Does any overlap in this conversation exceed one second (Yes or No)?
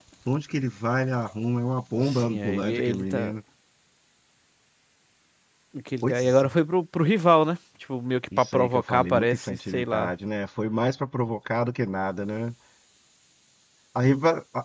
Yes